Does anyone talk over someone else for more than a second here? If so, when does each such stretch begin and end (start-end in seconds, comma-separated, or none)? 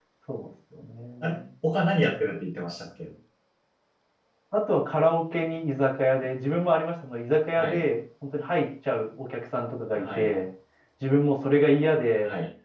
none